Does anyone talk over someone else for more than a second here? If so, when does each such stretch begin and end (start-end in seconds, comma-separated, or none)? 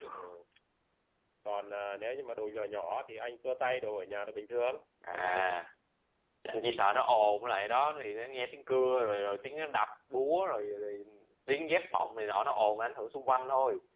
none